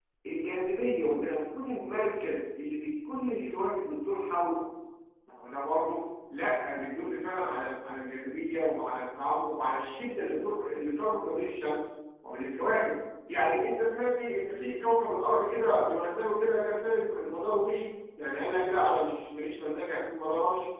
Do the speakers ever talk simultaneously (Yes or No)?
No